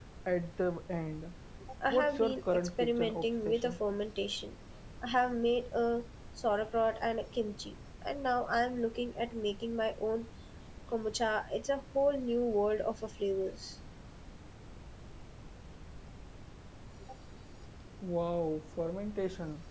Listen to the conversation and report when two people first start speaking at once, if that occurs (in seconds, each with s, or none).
1.9 s